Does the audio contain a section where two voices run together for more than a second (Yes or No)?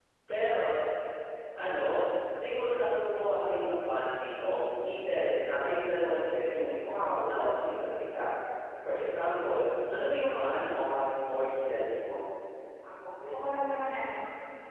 No